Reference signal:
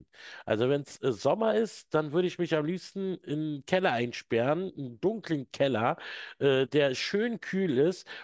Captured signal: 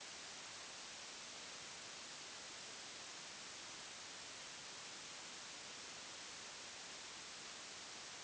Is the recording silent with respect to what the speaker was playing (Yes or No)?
Yes